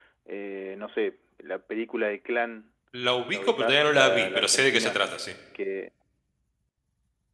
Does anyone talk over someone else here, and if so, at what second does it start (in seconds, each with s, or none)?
3.3 s